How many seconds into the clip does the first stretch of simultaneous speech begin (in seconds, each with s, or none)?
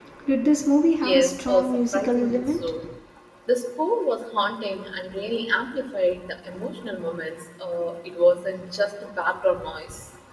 1.0 s